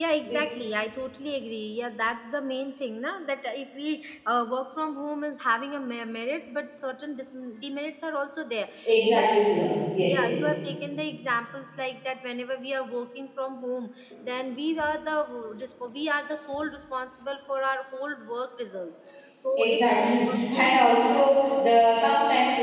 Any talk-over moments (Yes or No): Yes